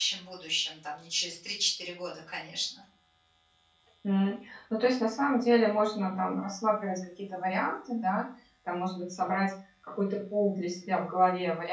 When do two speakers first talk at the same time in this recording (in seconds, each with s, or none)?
none